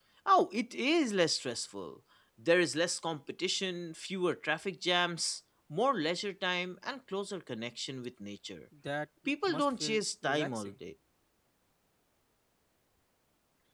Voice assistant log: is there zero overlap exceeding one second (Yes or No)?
No